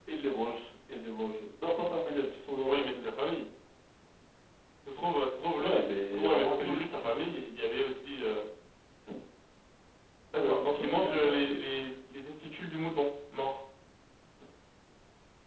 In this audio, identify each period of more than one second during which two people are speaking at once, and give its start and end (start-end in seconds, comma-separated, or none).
5.6-7.4, 10.3-11.6